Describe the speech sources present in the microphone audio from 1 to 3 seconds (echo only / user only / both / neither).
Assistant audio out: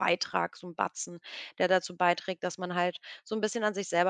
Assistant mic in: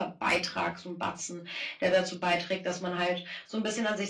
echo only